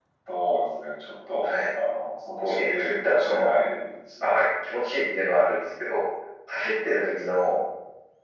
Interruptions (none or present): present